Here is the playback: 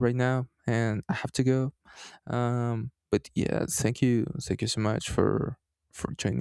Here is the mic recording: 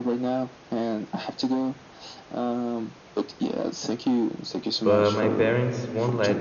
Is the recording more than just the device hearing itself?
Yes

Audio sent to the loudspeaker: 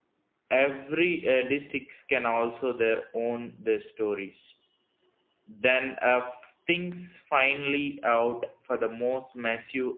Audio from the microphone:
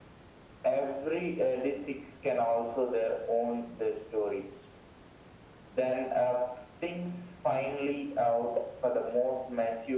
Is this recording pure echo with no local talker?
Yes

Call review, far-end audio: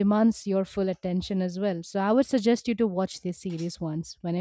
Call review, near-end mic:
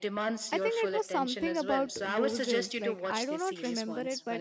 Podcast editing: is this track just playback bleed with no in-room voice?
No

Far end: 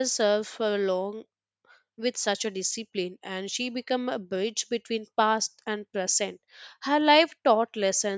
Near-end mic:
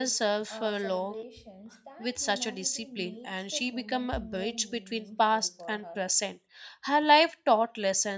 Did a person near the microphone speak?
Yes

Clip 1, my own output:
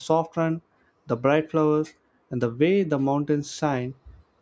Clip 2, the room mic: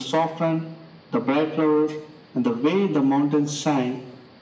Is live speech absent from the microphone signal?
Yes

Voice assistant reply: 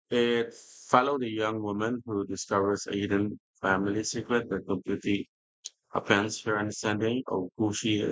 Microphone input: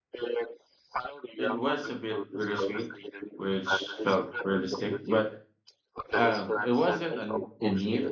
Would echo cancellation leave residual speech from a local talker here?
Yes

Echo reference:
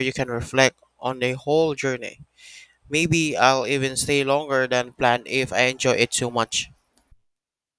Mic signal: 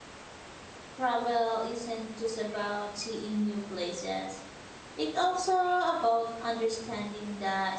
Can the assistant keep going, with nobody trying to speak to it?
No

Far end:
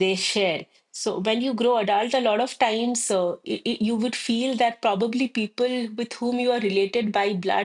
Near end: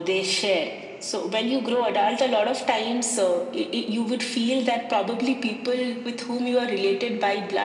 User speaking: No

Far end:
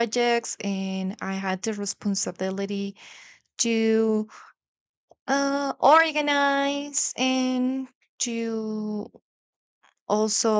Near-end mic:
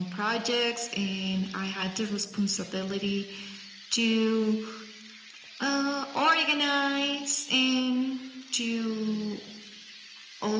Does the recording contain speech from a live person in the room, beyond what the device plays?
No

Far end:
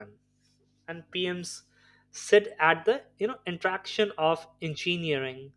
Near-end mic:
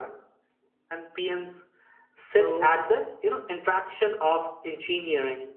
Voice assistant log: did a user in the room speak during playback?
Yes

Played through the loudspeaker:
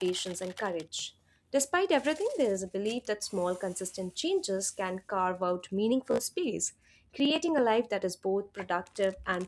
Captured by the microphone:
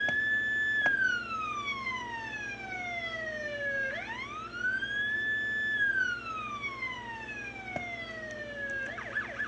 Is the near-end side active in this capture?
No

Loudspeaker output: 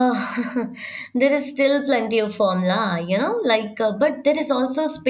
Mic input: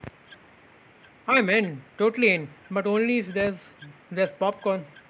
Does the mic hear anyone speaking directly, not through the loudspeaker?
Yes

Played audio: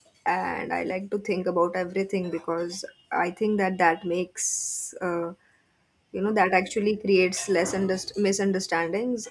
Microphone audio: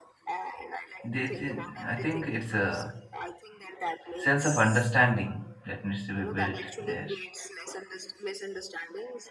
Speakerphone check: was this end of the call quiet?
No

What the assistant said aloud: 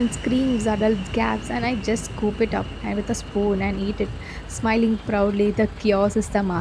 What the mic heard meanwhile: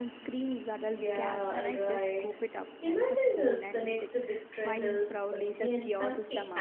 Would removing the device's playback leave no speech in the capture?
No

